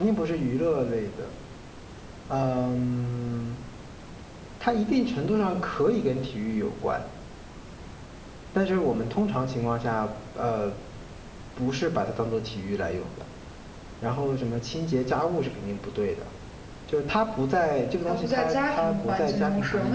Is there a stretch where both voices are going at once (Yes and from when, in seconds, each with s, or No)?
Yes, from 18.1 s